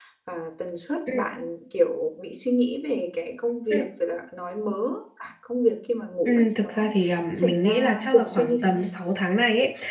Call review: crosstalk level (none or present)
present